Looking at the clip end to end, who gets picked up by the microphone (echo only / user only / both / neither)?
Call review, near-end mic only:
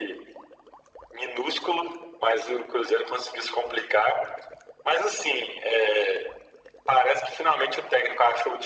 echo only